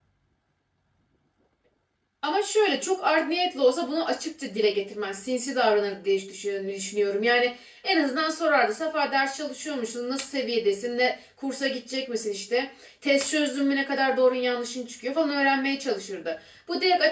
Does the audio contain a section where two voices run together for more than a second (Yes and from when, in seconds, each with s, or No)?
No